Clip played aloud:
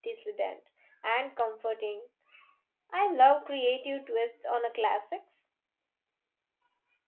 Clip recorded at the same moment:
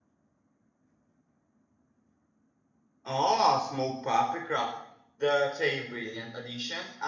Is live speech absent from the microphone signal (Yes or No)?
No